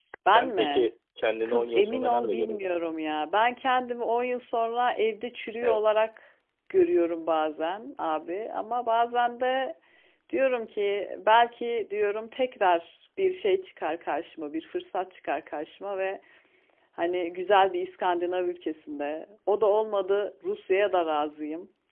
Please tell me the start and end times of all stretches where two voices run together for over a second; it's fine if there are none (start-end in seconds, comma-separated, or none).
1.4-2.7